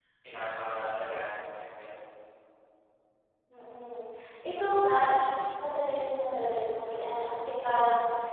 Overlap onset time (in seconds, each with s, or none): none